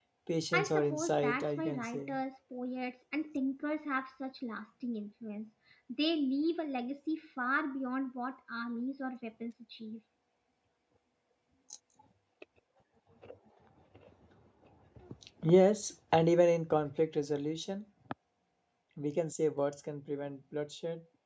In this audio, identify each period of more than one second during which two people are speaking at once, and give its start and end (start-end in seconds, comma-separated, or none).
0.5-2.2